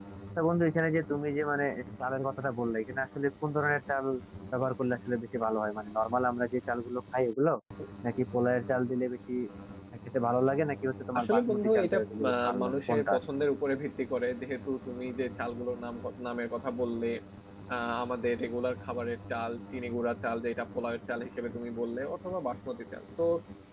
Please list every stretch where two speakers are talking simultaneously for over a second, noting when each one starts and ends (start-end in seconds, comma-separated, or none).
11.2-13.2